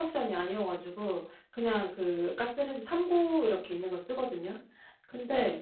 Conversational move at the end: listening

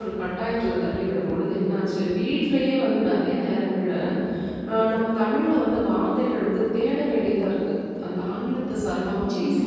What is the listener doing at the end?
taking over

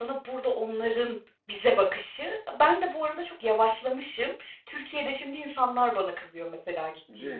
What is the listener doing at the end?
taking over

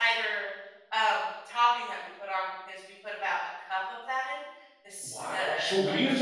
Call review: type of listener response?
taking over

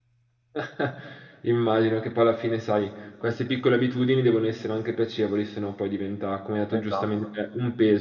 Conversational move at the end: listening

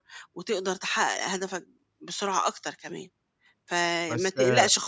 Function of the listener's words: listening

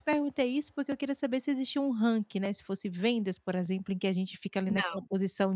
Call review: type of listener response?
listening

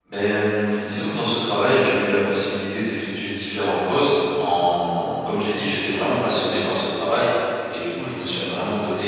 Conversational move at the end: listening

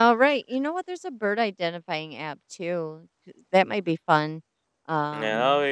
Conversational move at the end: taking over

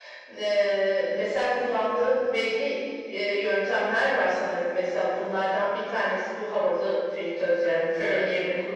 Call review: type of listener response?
listening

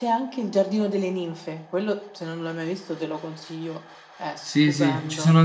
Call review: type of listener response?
taking over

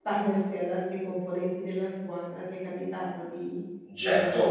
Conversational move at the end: taking over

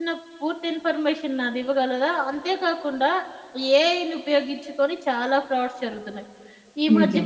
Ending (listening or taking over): listening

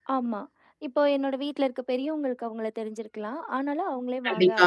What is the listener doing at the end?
listening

